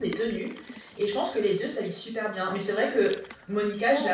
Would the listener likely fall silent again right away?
Yes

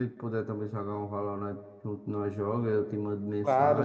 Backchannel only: Yes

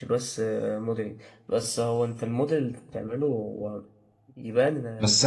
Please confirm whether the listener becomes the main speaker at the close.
Yes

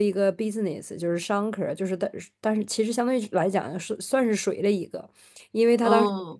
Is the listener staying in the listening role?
Yes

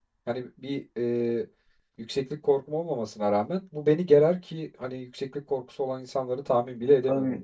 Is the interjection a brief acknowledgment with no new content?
No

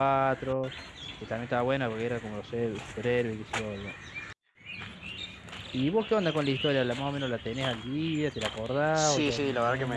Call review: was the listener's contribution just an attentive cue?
No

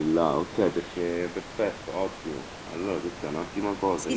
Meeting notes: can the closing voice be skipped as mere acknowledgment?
No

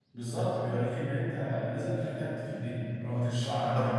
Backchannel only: Yes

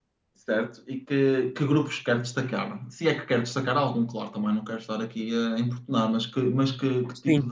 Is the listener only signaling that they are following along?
Yes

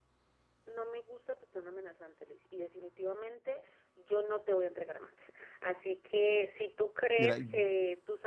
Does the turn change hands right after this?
No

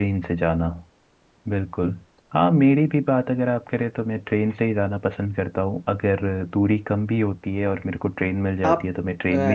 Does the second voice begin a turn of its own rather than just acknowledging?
Yes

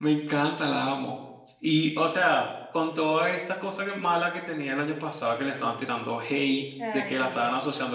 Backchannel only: Yes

